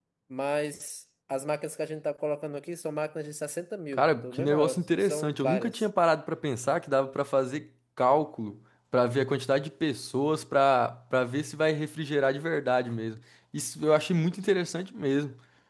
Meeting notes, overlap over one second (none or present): present